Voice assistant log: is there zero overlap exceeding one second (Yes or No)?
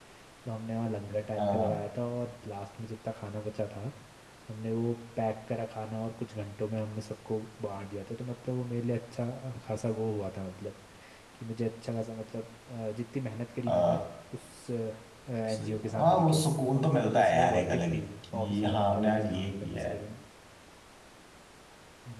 No